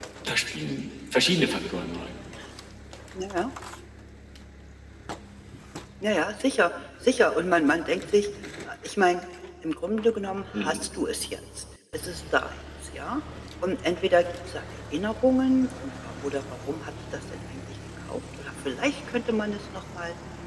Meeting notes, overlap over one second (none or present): none